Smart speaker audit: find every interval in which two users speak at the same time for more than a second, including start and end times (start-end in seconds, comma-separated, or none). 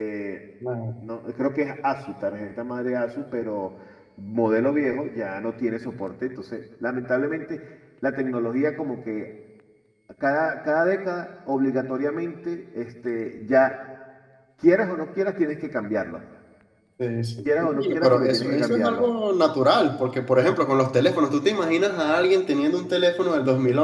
17.6-19.0